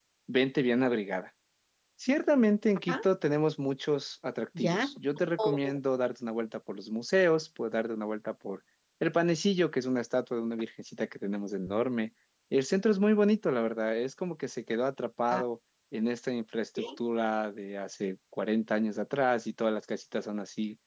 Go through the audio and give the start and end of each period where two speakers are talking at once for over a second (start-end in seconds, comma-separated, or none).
none